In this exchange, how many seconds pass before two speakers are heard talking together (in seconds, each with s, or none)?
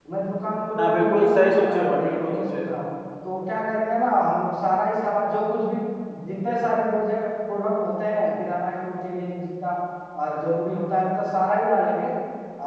0.8 s